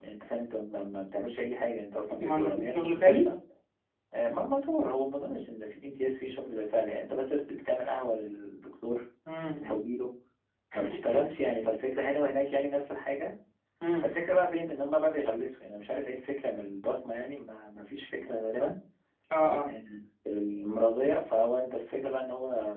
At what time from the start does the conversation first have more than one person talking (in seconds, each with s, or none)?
2.1 s